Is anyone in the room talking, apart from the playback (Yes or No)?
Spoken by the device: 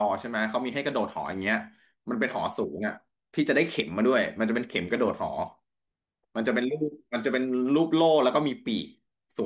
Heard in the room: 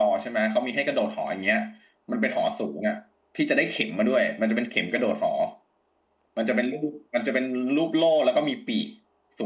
No